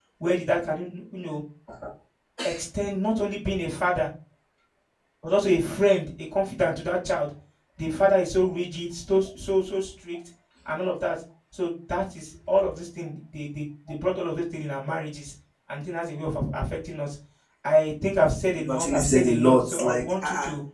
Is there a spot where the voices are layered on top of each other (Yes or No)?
Yes